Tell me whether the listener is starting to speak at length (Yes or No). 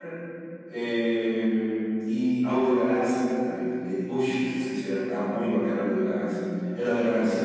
No